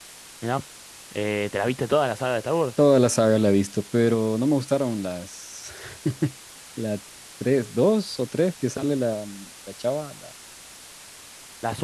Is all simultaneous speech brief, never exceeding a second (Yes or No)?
Yes